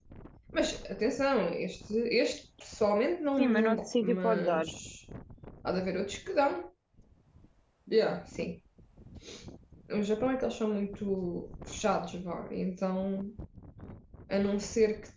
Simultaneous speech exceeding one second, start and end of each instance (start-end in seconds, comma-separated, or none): 3.4-4.7